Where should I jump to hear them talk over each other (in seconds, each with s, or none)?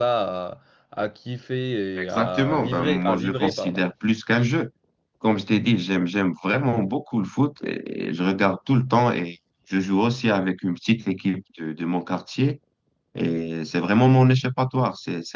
2.0 s